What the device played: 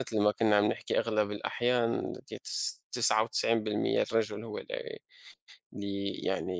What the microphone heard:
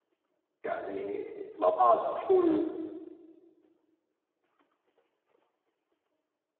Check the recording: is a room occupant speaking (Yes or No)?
Yes